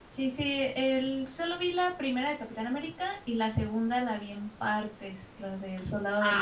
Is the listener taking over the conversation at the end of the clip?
Yes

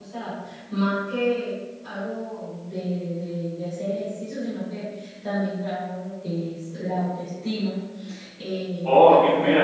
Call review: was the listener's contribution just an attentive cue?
No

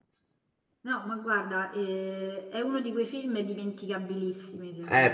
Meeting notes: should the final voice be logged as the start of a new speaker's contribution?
Yes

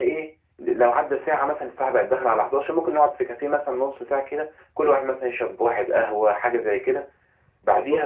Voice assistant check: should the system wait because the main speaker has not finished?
Yes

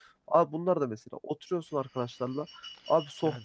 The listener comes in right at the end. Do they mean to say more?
No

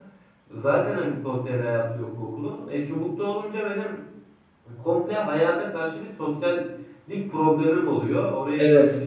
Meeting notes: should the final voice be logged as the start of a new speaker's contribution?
No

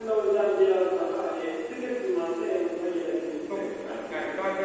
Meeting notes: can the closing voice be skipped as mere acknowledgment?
No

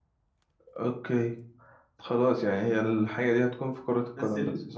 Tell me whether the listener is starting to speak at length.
Yes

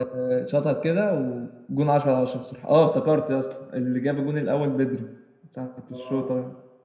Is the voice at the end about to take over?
No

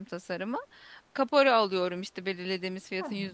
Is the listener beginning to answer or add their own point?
No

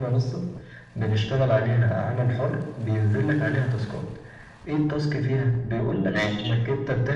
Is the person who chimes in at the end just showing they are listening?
Yes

